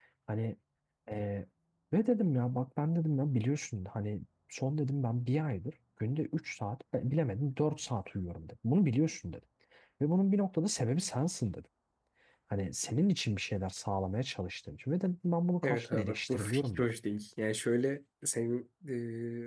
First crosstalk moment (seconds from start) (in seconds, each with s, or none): 15.6 s